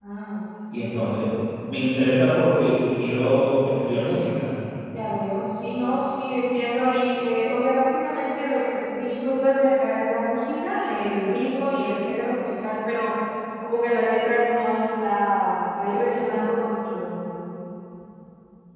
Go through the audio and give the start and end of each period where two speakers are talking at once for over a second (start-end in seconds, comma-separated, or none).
none